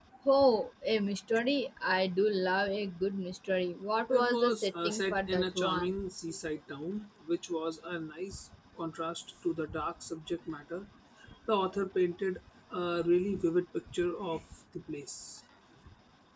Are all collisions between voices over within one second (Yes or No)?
No